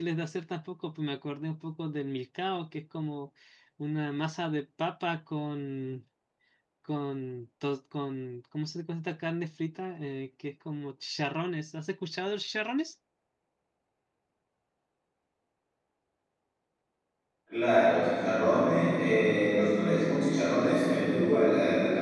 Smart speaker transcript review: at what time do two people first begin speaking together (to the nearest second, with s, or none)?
none